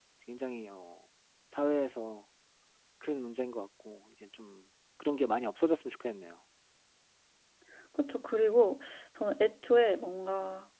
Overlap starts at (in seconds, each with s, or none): none